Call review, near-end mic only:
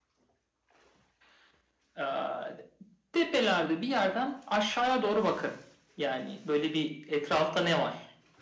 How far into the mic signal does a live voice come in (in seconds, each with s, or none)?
none